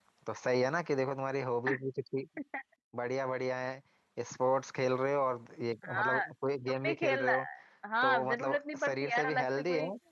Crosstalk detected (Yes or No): Yes